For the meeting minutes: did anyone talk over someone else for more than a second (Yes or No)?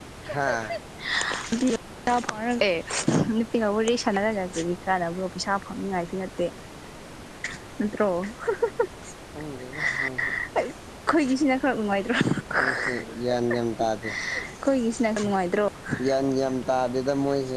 No